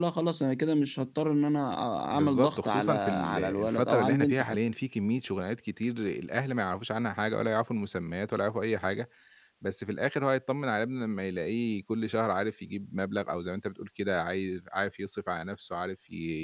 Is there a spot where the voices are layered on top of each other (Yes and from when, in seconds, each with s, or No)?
Yes, from 2.1 s